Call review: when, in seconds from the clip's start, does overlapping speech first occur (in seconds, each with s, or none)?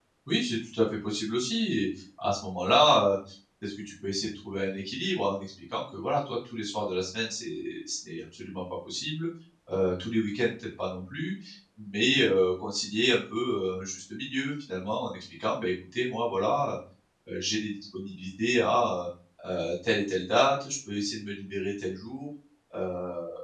none